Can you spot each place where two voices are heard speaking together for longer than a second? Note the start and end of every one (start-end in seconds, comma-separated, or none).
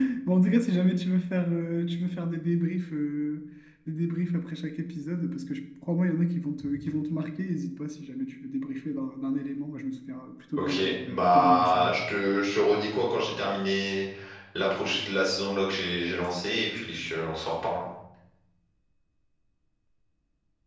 10.6-12.0